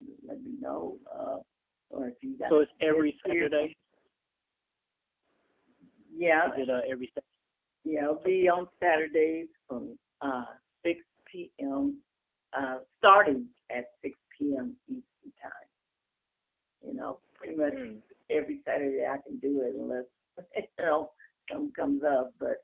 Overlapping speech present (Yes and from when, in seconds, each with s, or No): Yes, from 2.4 s